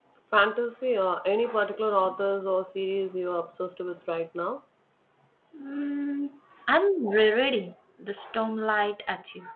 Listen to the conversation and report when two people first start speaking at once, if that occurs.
none

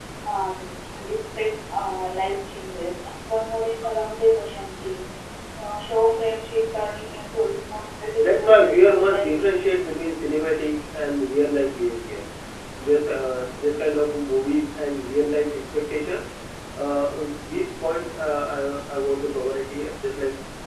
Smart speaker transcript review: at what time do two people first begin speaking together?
8.2 s

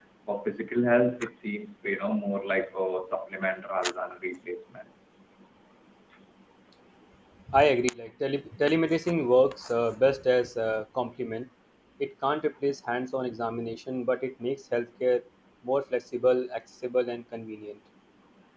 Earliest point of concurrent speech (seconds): none

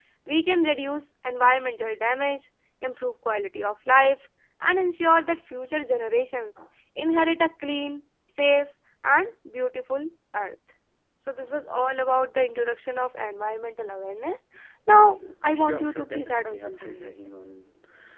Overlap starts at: 15.5 s

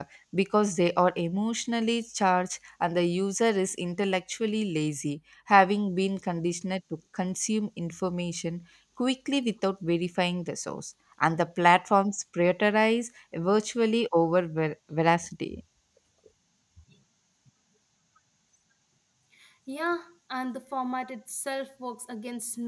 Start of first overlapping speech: none

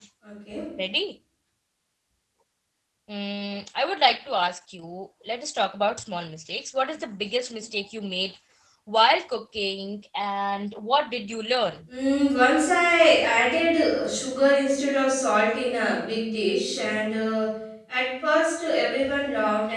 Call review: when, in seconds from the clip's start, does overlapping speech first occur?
none

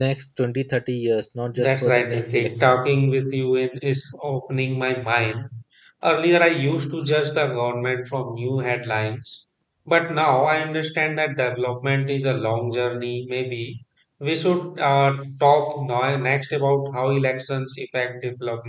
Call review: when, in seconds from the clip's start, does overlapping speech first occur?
1.5 s

